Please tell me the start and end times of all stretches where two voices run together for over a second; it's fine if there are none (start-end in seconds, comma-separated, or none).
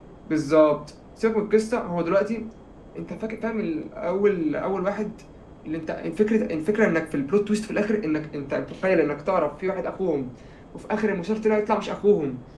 none